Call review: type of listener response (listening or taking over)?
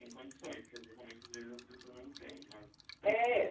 taking over